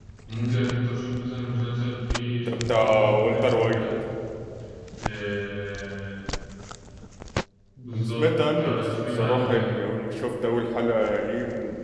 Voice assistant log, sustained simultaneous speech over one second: present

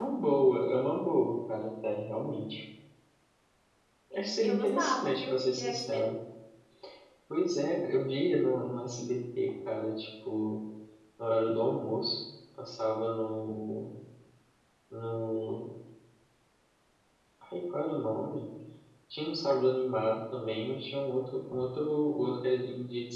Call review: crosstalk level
present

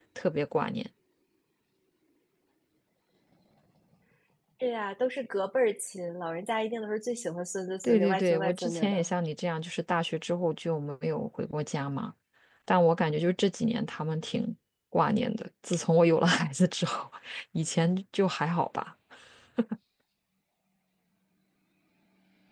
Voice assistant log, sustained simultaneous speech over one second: present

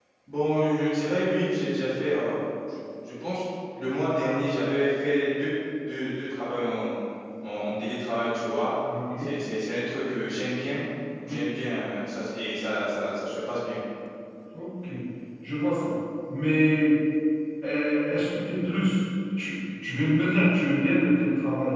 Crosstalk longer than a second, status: none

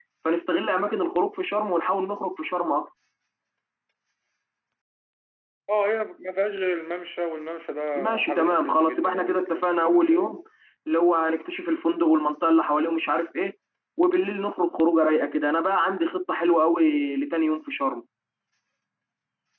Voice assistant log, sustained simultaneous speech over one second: present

